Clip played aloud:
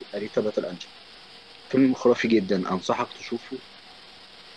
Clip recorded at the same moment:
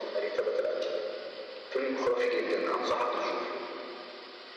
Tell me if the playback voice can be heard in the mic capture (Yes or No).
Yes